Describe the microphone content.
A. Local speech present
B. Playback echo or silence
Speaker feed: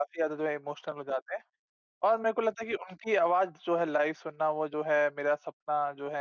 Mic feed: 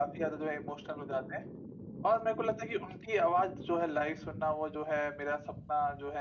B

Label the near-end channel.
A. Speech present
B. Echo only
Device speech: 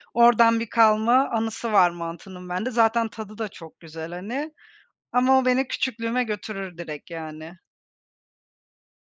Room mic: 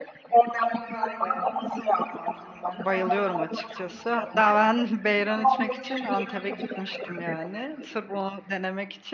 A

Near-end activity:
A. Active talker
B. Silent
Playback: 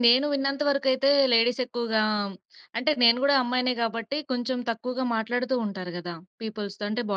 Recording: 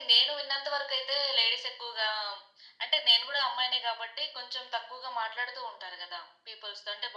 B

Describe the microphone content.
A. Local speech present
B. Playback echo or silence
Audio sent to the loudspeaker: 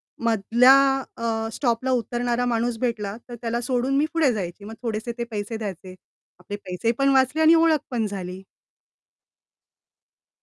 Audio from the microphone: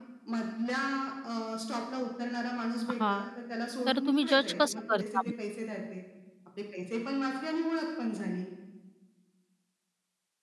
A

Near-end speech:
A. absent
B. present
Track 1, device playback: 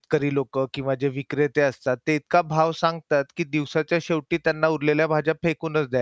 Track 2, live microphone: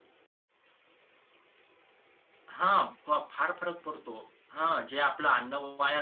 B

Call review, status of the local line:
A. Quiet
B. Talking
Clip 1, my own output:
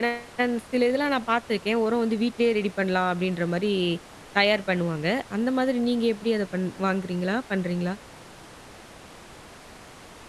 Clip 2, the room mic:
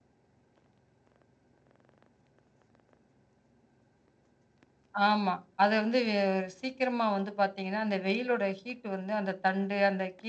B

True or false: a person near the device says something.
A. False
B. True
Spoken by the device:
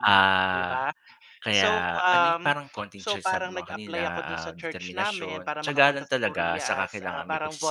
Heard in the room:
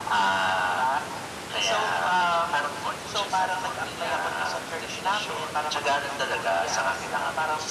A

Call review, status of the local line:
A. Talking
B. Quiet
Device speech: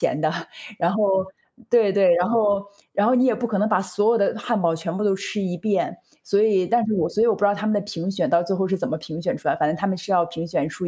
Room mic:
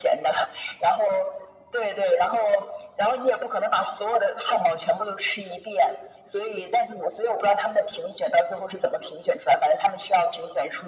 B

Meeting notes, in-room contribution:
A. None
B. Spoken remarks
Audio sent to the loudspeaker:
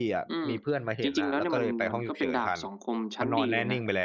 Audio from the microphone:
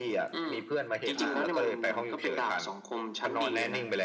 B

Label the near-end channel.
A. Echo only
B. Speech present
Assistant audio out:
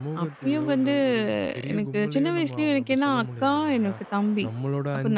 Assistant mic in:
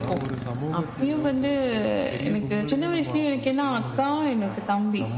A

